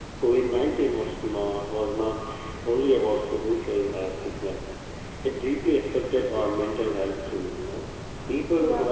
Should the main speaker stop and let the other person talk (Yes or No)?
No